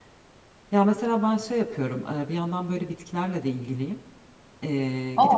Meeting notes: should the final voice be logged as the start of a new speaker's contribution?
No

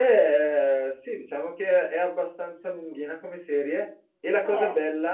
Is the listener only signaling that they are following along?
Yes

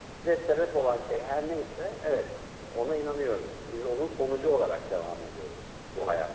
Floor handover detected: No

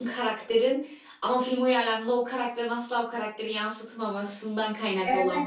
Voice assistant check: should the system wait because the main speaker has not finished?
No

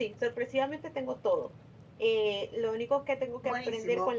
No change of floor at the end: Yes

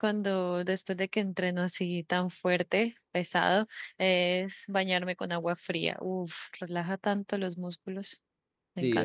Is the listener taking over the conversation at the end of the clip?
Yes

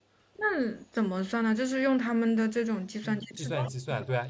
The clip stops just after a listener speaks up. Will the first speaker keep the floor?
No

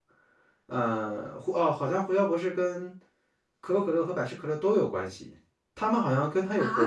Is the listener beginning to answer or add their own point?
No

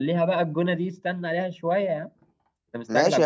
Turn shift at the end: Yes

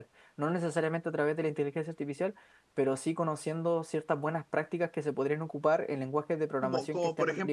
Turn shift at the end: Yes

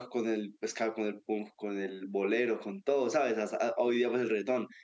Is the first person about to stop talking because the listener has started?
No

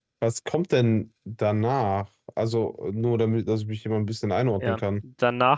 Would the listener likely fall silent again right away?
No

